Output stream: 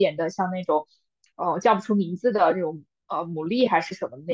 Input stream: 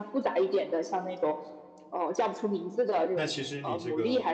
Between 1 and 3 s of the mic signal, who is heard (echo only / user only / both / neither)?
echo only